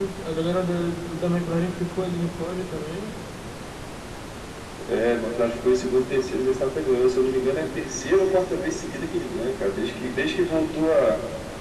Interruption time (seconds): none

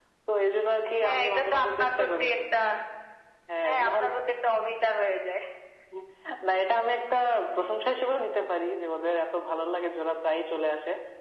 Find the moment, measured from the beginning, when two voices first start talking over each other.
1.0 s

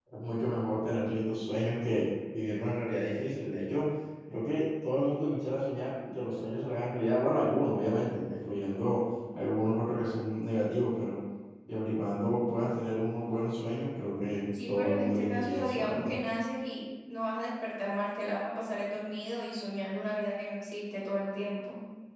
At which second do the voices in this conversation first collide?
14.5 s

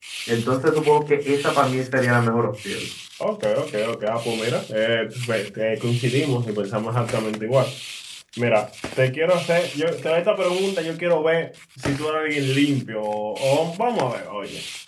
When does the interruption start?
none

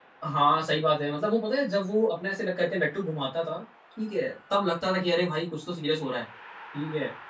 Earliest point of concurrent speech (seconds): none

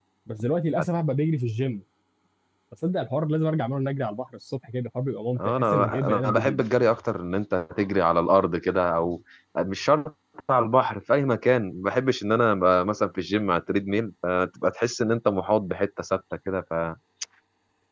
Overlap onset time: 5.4 s

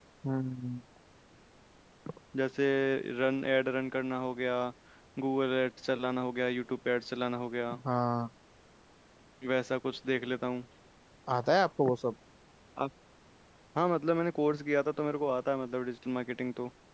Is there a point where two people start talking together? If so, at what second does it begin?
none

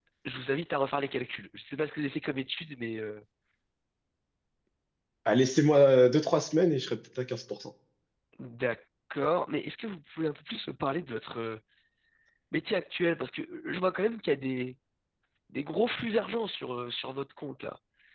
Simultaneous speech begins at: none

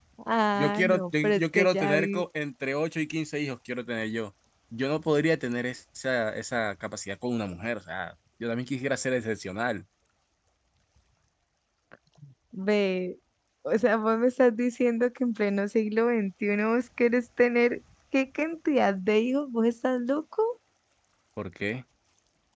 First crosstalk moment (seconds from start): 0.6 s

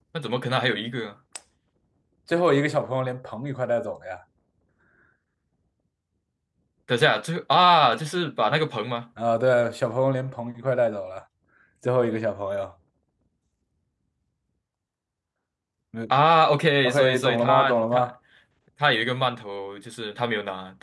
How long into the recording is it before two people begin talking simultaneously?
16.8 s

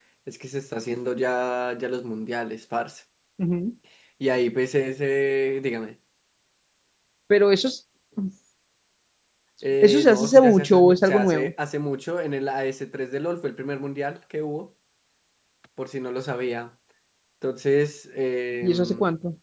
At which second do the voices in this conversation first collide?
9.8 s

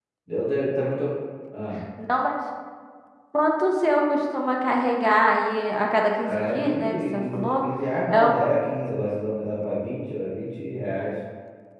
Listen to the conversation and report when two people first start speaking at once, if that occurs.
6.3 s

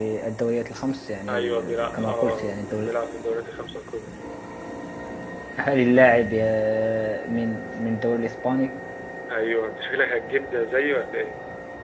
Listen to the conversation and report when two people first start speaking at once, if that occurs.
1.3 s

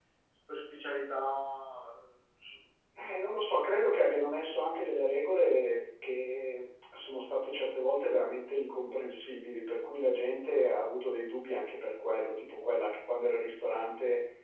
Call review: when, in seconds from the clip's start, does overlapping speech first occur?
none

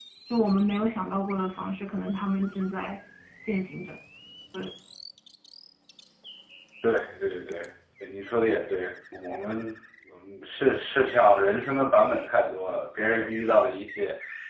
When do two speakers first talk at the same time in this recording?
none

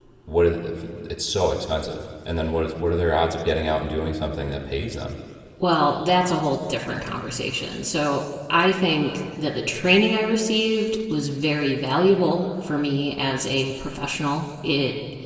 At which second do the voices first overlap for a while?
none

